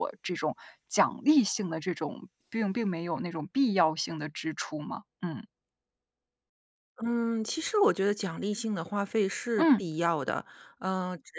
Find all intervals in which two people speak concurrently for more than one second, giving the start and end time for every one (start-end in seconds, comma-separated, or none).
none